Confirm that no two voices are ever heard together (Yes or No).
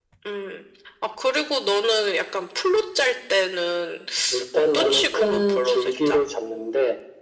No